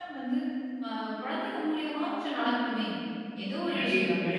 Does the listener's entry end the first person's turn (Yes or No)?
No